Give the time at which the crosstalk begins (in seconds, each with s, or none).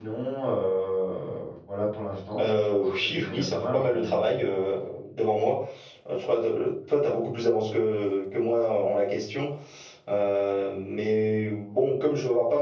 2.4 s